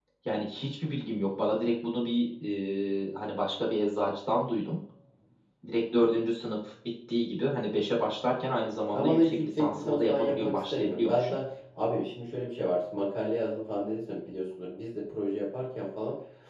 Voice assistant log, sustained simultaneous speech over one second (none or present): present